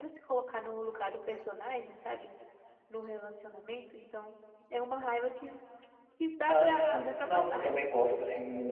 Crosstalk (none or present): present